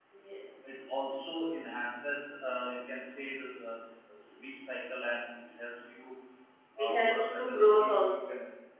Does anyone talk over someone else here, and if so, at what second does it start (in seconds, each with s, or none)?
6.8 s